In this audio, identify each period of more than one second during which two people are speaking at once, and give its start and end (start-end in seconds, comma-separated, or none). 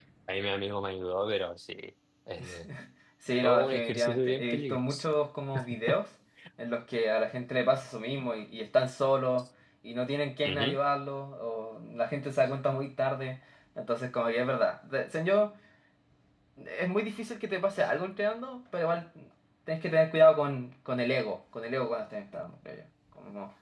3.4-5.1